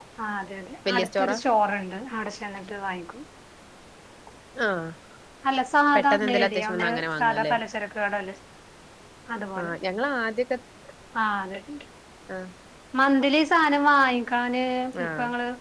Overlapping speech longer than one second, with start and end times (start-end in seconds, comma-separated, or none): 5.9-7.5